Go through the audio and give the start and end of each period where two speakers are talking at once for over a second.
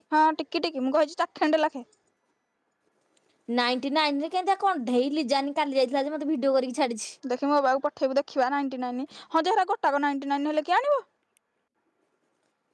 none

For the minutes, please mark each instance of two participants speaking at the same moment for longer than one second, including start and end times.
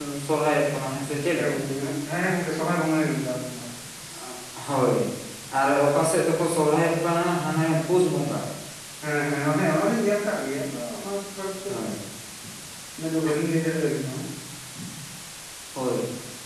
none

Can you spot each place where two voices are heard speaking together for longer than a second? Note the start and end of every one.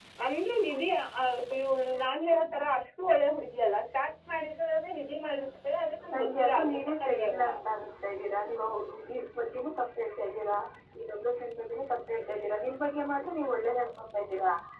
6.1-7.4

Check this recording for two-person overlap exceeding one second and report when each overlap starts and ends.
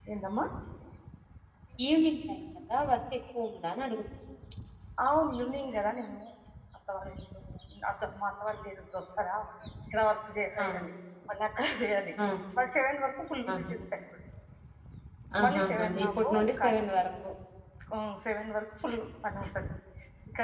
15.4-16.7

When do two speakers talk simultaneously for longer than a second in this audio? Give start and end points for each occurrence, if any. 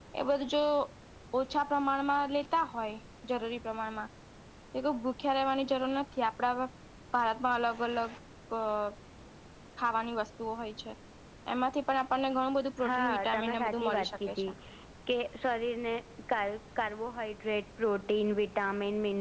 12.9-14.5

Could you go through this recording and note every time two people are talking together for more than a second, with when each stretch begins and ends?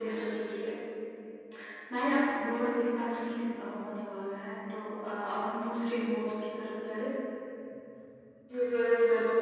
none

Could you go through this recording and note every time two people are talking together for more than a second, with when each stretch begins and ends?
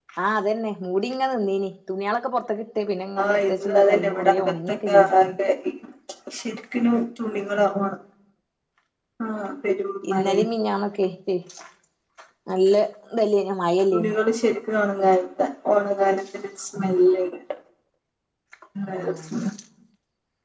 3.2-5.0

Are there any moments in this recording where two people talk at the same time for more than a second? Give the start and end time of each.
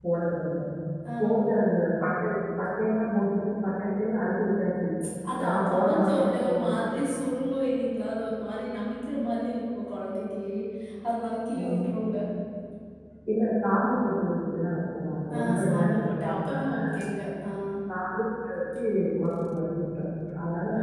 5.4-6.8, 15.4-16.8

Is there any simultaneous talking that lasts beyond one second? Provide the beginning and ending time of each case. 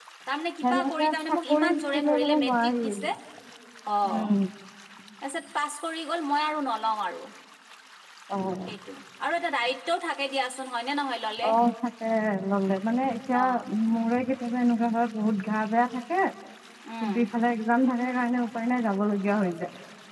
0.6-2.8

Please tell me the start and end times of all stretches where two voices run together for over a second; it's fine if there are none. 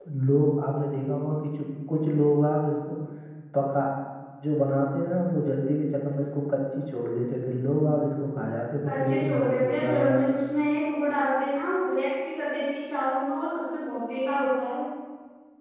8.8-10.2

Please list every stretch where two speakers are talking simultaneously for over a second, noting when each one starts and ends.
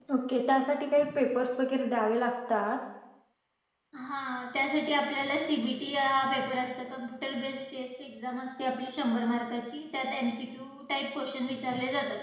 none

